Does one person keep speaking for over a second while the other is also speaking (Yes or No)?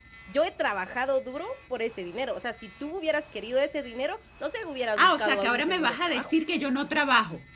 Yes